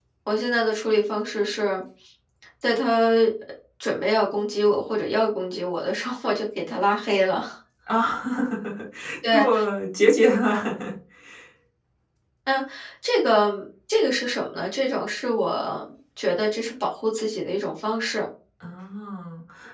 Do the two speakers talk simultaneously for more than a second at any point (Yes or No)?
No